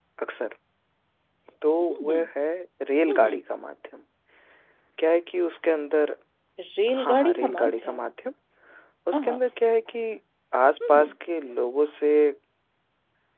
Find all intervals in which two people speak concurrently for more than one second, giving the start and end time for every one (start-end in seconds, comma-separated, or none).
6.9-8.1